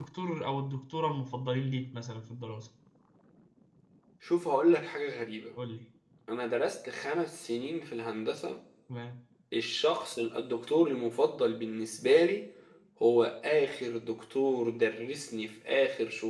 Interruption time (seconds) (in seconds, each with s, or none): none